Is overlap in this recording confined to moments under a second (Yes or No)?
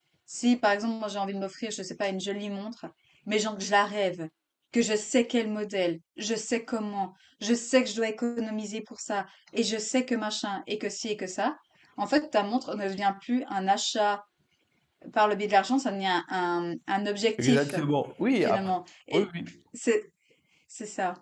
Yes